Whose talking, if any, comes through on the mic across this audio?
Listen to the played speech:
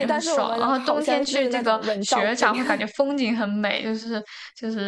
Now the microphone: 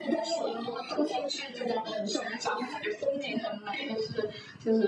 echo only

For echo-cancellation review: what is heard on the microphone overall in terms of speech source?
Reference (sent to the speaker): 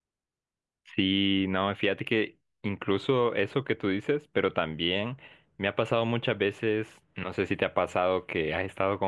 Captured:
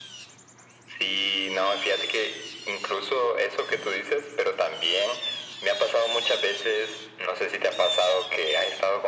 echo only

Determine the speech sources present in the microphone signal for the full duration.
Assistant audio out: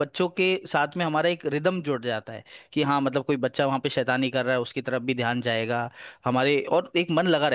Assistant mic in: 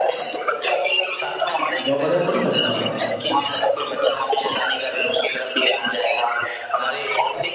both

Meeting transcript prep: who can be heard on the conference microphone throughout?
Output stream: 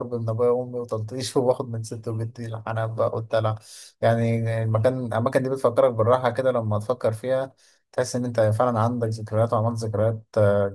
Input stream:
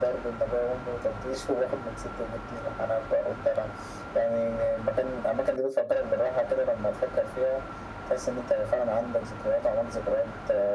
echo only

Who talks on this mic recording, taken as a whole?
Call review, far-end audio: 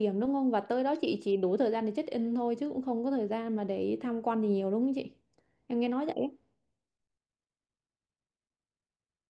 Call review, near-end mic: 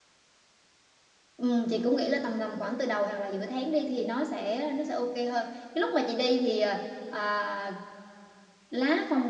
user only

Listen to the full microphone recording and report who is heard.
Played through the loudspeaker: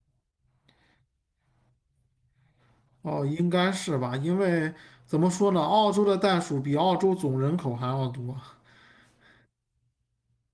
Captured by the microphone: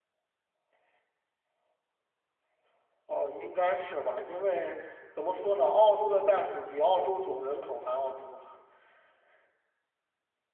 echo only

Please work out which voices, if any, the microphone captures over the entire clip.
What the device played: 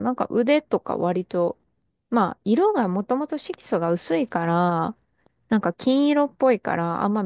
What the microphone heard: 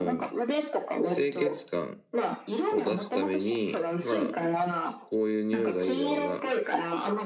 both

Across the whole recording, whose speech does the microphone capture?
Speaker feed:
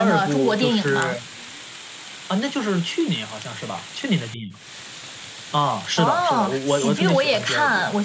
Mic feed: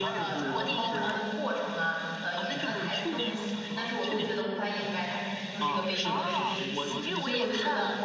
both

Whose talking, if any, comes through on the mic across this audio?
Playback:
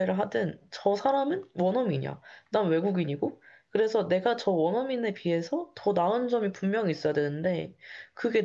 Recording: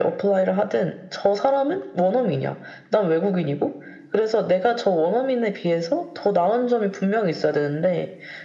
echo only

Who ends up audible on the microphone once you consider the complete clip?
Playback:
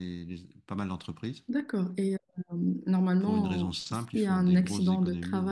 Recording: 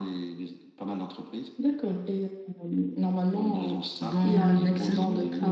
both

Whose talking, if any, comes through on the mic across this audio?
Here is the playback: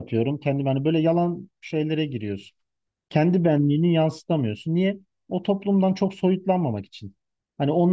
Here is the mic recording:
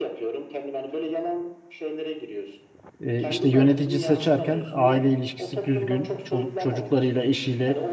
both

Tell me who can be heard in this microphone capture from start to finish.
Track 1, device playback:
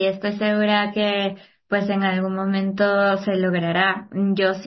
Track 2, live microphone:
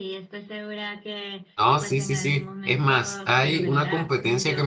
both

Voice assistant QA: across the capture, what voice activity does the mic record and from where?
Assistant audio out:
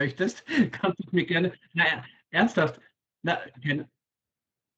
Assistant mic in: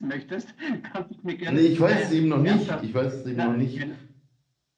both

